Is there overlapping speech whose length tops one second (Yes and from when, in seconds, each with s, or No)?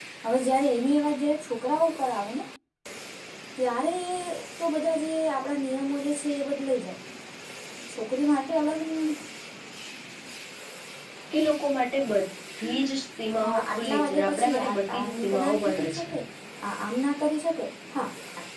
Yes, from 13.3 s